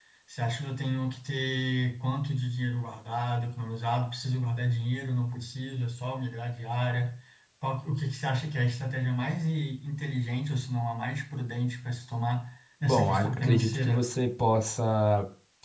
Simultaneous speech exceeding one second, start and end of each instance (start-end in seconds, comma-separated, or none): 12.8-14.0